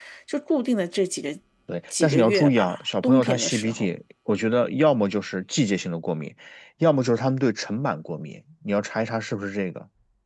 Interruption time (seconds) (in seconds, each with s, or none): 2.0 s